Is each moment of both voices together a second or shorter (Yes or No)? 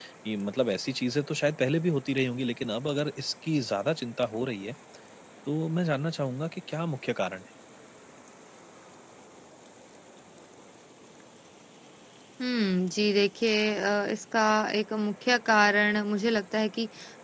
Yes